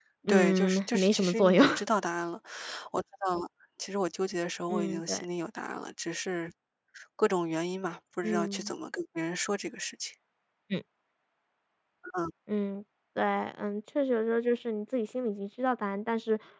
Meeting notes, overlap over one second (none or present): present